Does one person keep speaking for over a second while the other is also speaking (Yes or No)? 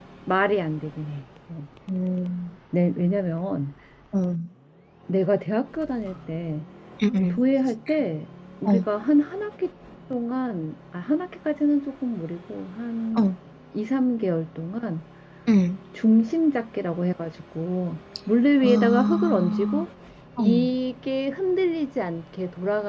Yes